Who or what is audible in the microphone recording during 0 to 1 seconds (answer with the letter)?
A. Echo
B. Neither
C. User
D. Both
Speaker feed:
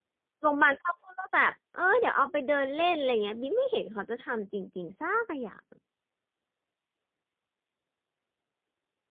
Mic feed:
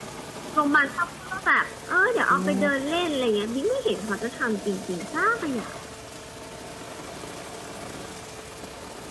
A